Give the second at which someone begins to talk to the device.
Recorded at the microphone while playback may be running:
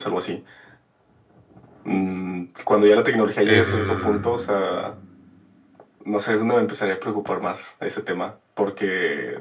3.4 s

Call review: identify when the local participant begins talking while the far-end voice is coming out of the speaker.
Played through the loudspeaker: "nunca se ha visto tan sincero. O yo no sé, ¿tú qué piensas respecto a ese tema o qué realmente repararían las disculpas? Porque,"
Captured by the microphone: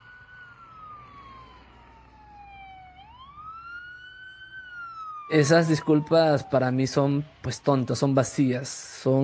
5.3 s

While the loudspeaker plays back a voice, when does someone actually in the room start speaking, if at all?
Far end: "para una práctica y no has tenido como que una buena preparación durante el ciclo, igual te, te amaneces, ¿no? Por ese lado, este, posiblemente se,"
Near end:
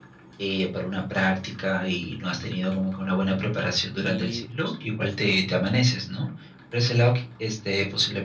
3.9 s

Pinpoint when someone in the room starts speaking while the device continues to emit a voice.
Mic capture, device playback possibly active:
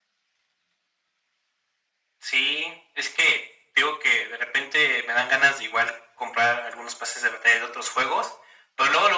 none

